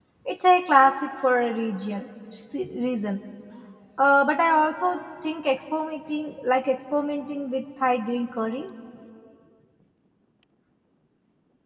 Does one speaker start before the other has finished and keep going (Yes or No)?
No